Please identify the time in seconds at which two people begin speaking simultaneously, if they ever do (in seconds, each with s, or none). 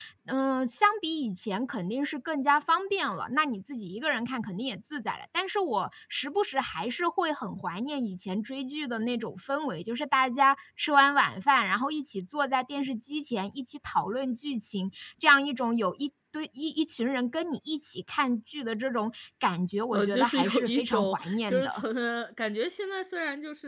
19.9 s